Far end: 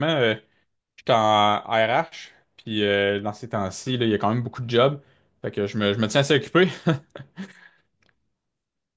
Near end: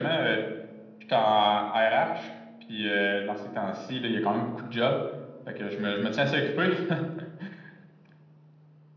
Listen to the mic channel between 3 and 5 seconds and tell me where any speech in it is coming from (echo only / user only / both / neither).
echo only